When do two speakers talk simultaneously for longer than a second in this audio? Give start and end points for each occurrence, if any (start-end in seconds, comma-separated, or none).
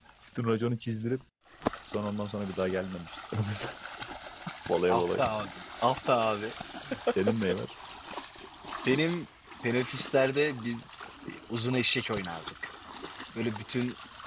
none